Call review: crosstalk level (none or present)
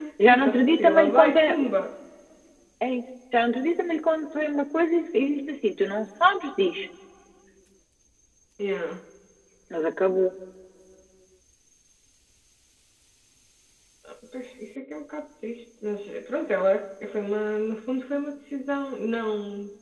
present